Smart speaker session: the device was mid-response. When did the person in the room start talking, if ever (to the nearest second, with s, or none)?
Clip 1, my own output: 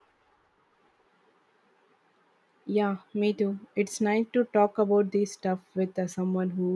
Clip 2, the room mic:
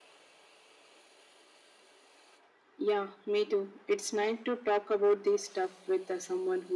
none